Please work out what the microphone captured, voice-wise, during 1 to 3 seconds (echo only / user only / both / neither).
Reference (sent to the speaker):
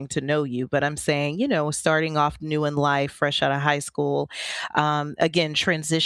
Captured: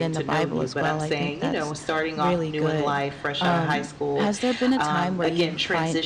both